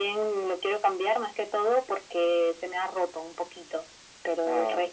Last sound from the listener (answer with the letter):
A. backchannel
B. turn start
A